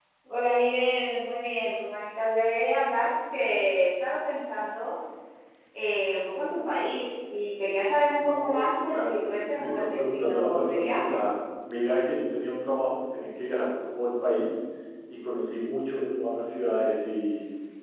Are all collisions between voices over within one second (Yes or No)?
No